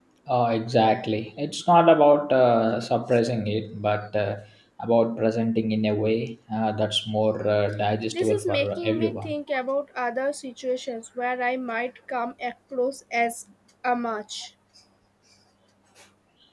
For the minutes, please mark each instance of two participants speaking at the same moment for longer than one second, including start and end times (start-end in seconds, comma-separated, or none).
8.1-9.3